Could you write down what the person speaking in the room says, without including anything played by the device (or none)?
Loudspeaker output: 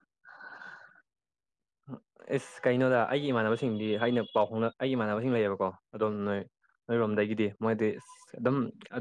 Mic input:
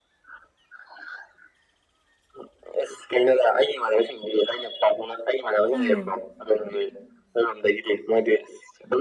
ꯎꯝ